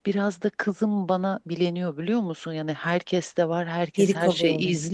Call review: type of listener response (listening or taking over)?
listening